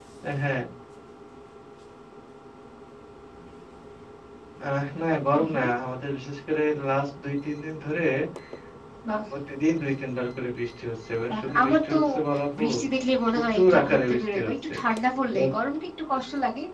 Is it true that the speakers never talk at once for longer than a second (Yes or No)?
No